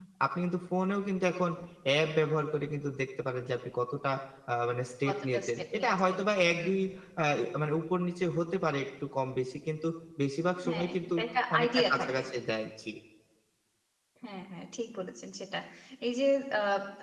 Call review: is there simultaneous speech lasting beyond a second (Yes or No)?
Yes